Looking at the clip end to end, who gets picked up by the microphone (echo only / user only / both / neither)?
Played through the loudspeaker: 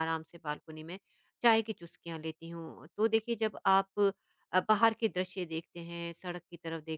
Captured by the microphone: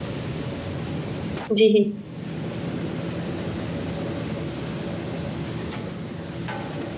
user only